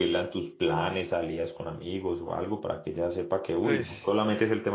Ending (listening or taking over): listening